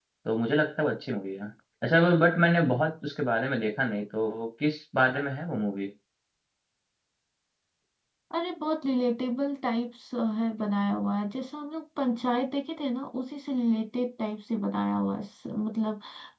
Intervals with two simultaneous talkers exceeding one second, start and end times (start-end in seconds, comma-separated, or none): none